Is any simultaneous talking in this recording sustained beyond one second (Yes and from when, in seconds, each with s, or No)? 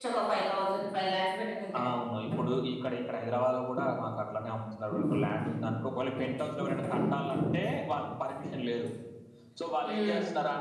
No